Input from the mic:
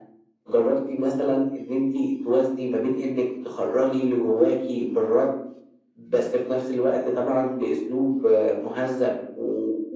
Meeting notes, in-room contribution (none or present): none